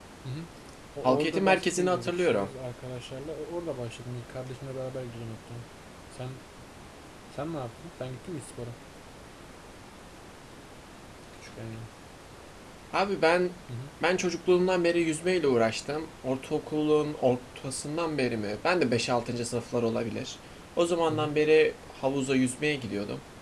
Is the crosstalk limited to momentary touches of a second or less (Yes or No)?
No